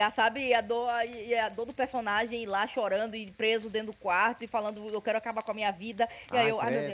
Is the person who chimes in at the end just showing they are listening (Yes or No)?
Yes